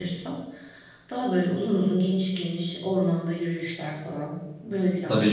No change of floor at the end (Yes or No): No